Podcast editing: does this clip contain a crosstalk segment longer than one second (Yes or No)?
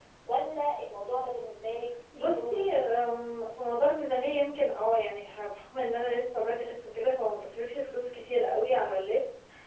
No